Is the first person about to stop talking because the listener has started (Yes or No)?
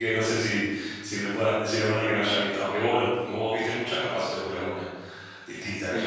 Yes